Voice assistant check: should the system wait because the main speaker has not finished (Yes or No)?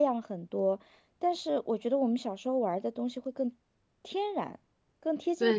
No